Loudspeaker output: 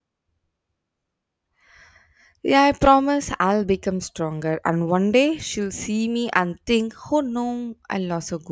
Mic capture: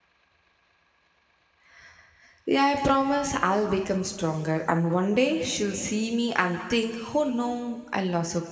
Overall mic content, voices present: echo only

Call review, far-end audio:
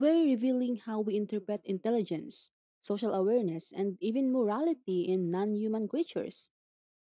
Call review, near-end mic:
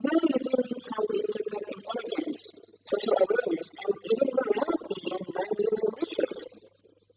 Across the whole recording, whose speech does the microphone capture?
echo only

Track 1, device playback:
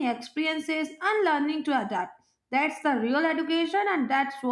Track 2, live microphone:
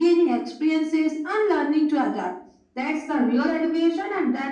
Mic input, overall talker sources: echo only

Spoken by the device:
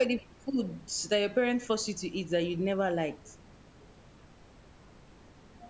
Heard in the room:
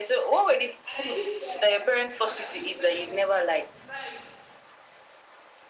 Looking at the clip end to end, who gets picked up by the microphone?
both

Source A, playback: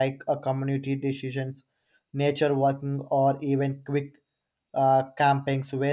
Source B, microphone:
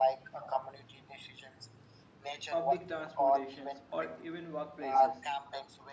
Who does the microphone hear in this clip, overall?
both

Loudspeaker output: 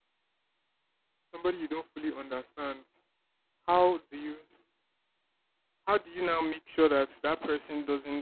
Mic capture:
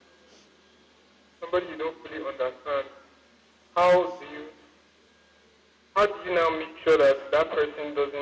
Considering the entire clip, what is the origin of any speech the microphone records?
echo only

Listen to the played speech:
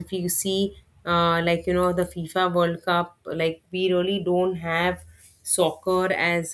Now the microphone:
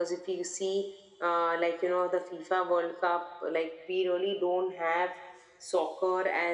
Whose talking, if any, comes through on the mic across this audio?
echo only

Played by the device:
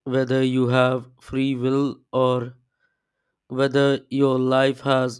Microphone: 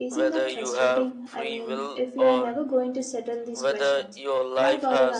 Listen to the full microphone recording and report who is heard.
both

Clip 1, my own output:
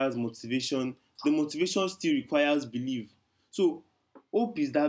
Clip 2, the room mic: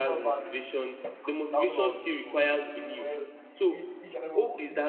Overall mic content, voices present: both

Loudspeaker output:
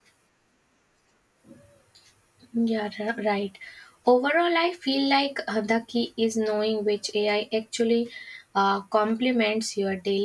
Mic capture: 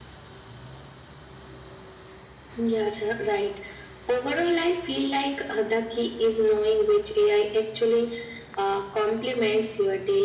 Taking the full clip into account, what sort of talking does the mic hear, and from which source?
echo only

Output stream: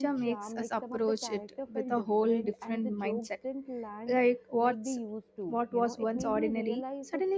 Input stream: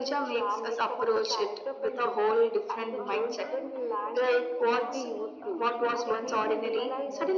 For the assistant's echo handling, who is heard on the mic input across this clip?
both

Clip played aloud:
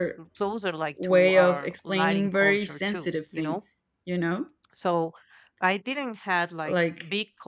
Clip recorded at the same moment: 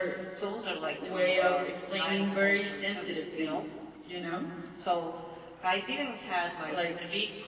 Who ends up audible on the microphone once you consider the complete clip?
echo only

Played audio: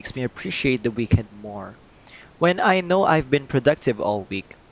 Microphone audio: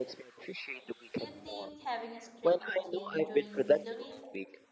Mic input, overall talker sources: both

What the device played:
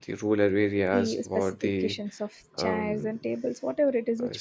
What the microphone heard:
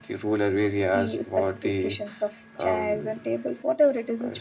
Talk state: echo only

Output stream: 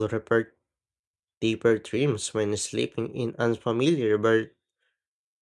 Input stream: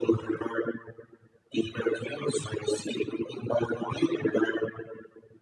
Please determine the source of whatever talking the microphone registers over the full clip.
echo only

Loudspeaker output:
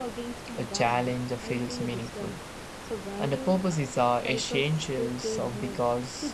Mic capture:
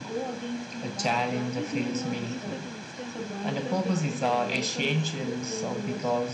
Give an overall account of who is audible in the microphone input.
both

